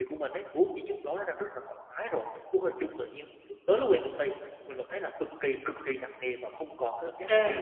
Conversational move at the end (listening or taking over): taking over